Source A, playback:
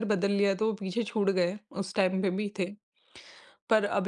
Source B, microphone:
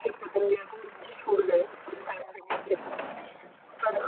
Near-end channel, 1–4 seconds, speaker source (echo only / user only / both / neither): echo only